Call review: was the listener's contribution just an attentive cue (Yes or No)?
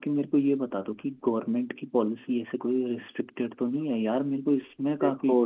No